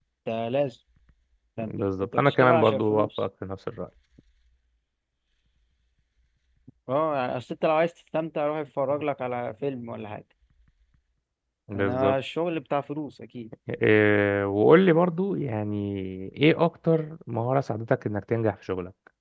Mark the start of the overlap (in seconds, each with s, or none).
1.7 s